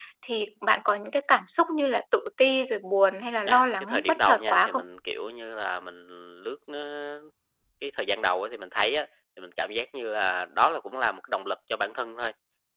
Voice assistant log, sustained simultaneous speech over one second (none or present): present